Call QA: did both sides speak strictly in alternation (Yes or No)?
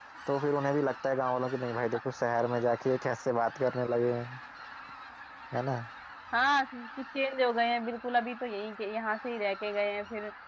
Yes